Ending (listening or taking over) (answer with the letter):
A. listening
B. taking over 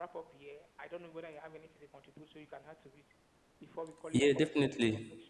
B